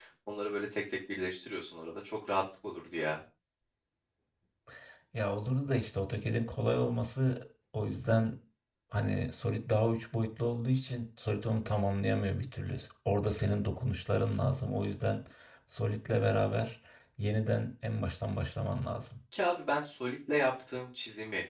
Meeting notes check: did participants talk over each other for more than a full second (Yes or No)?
No